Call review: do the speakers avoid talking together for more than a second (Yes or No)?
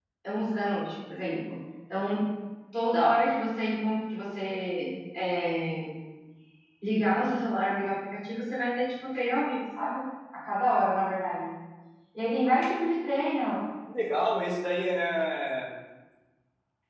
Yes